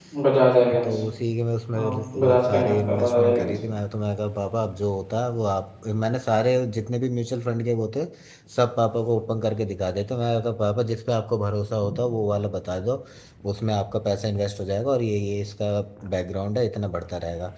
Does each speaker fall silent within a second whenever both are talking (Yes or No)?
No